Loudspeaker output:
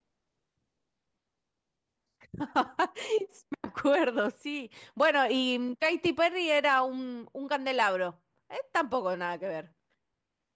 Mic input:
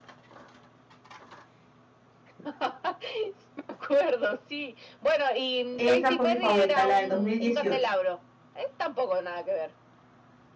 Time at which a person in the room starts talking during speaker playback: 5.8 s

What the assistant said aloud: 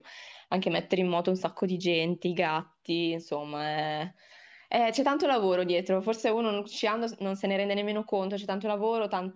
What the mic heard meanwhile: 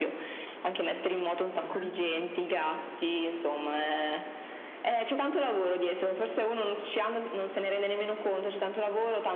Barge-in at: 1.6 s

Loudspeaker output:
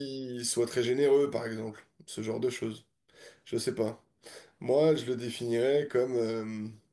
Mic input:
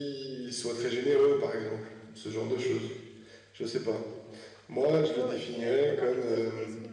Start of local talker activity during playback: 5.1 s

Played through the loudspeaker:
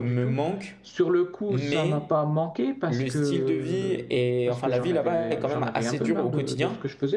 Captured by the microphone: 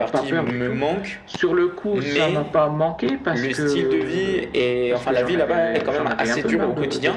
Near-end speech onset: none

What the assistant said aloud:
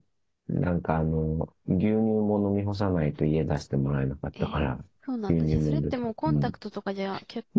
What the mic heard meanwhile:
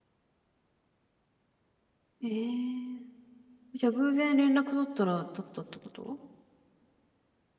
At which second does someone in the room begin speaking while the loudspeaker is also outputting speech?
2.2 s

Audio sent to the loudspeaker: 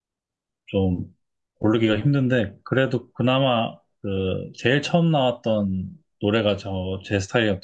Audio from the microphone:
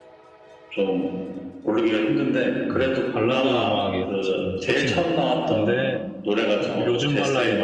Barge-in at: 2.7 s

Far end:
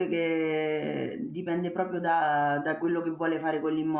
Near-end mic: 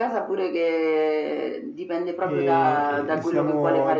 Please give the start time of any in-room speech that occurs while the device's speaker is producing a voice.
2.2 s

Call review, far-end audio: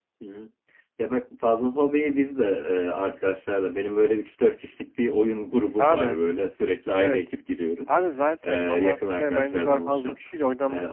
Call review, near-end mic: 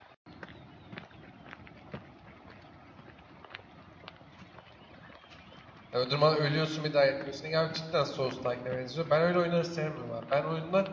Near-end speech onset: 5.9 s

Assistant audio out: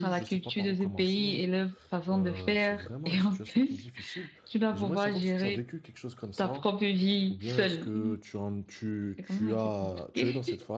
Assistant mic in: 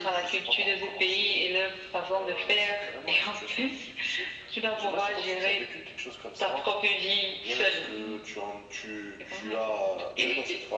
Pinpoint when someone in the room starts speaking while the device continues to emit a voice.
none

